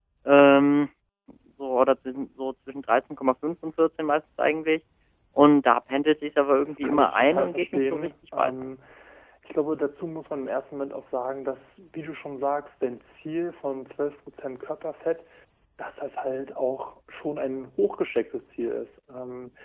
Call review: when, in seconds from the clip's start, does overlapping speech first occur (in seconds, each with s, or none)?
6.6 s